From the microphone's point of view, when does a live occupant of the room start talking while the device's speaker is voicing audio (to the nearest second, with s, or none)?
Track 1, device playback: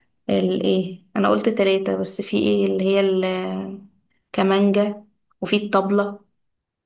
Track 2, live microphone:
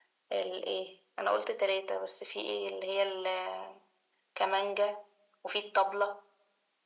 none